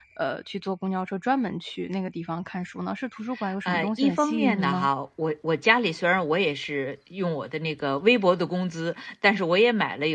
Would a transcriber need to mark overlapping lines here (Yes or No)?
Yes